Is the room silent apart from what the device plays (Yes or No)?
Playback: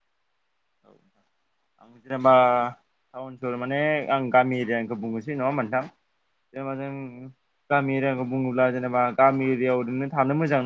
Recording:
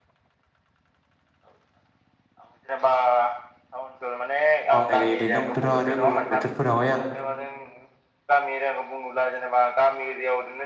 No